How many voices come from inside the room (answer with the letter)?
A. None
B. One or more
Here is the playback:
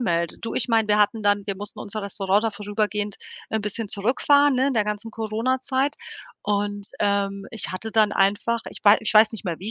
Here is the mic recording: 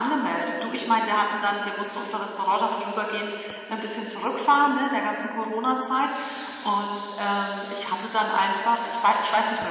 A